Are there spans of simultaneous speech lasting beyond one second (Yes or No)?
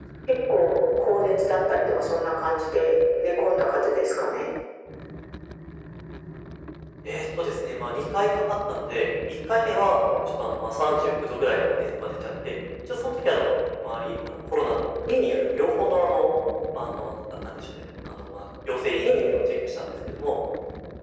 No